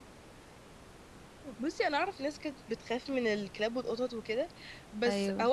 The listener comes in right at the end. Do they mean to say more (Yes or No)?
No